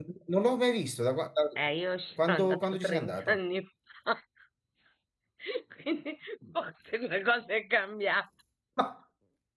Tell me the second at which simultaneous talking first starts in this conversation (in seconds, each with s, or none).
2.2 s